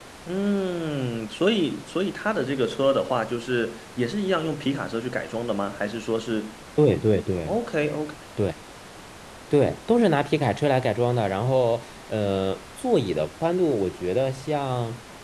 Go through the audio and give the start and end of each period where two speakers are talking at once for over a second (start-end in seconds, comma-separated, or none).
none